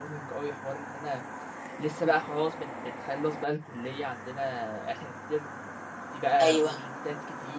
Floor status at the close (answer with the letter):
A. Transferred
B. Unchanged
B